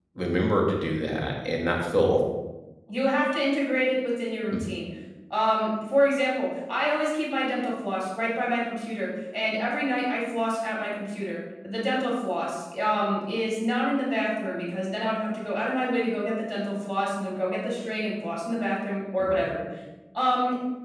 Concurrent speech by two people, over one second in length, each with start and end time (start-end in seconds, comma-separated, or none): none